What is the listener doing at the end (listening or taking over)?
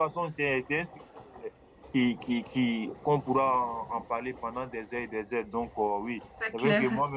listening